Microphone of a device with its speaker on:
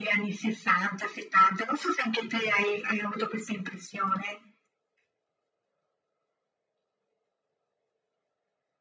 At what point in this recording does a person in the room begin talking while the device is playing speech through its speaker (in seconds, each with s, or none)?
none